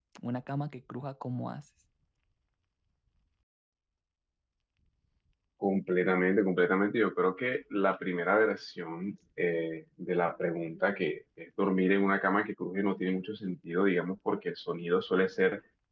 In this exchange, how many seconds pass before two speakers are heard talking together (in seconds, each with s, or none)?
none